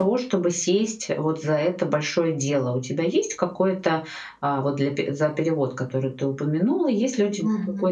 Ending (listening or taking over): listening